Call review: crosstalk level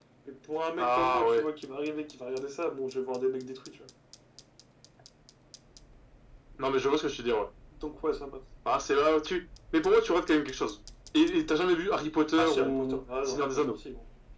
present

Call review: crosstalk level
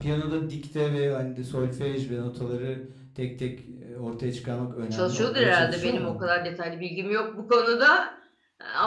present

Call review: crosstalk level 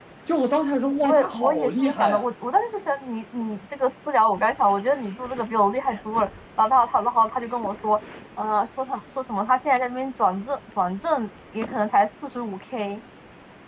present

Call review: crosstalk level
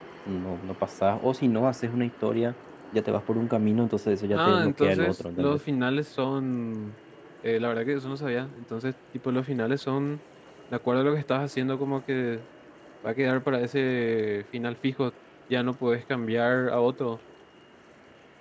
present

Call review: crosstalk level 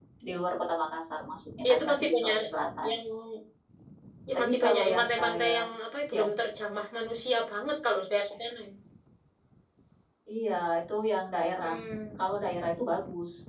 present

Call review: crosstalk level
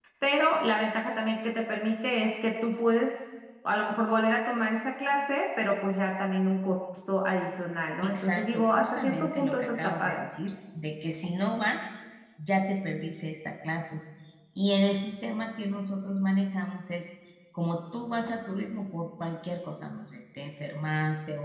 present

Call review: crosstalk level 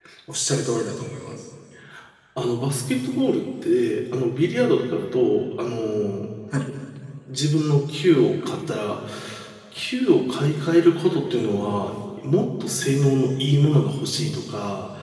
none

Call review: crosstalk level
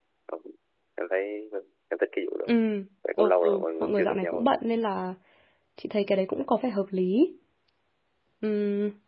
present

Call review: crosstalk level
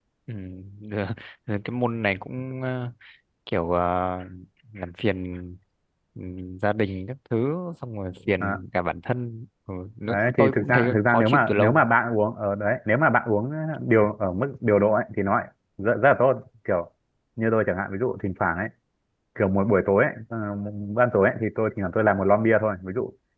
present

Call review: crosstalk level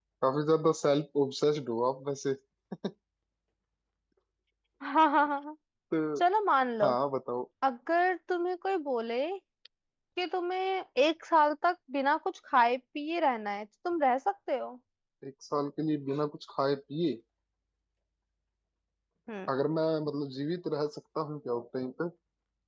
none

